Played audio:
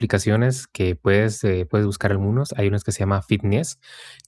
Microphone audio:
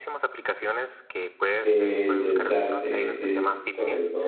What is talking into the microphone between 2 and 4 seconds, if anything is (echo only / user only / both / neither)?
both